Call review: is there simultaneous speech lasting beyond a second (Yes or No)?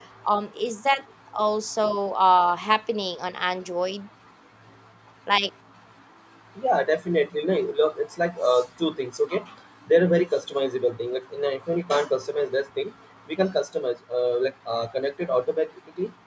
No